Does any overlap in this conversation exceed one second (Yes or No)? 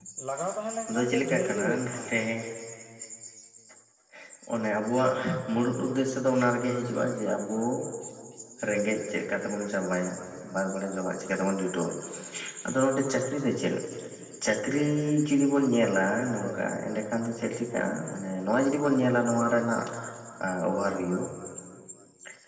Yes